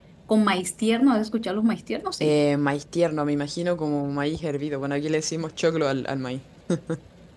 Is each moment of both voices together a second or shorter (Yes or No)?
Yes